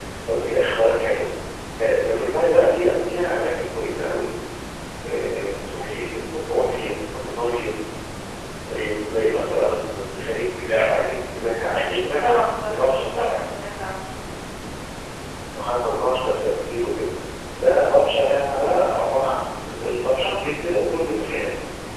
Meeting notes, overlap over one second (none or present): present